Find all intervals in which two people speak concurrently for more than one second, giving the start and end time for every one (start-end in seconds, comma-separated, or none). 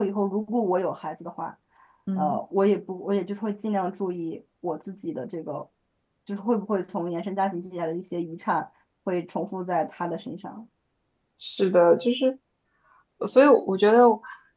none